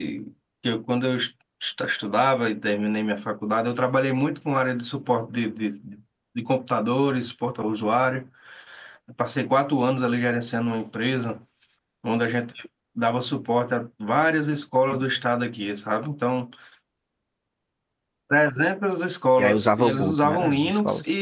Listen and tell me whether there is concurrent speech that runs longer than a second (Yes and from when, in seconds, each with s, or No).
Yes, from 19.4 s